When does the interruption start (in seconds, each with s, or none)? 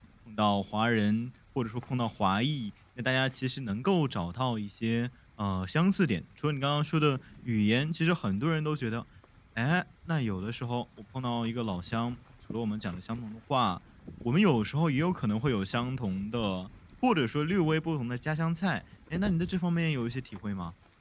none